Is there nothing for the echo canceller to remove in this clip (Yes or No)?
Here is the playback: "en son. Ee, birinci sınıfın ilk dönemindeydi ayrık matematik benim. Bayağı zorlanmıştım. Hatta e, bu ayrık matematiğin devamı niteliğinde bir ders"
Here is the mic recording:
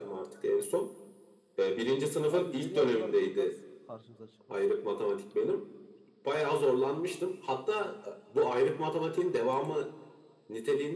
No